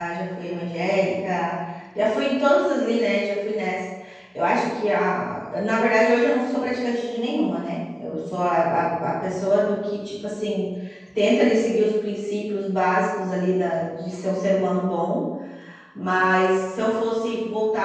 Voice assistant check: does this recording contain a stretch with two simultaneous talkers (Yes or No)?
No